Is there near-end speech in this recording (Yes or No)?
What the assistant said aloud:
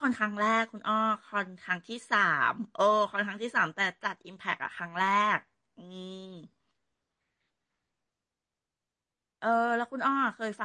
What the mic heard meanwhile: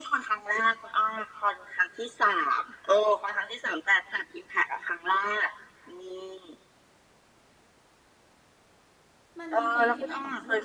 Yes